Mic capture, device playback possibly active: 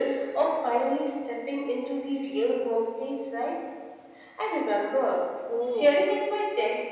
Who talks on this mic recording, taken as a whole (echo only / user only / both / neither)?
both